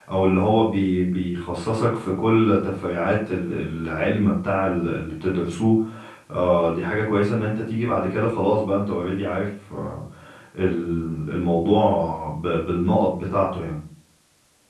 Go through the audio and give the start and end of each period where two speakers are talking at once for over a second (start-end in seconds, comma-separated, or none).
none